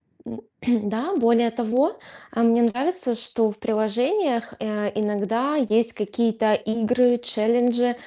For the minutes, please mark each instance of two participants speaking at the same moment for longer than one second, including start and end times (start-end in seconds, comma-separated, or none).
none